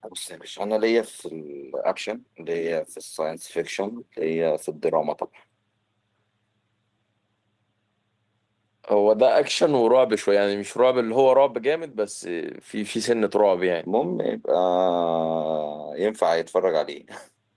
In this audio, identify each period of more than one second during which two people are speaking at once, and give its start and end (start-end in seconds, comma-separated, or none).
none